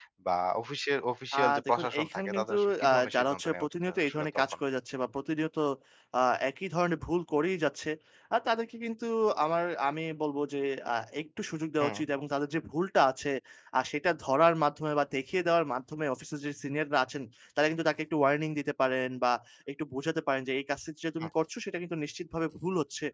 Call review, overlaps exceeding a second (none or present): present